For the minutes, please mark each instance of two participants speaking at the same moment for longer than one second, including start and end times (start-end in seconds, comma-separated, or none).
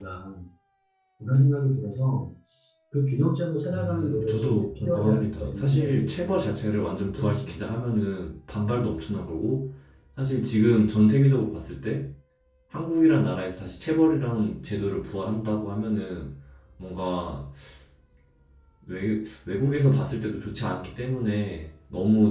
3.7-6.5